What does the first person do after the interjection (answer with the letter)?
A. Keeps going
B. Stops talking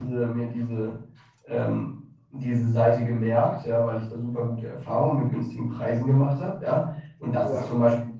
A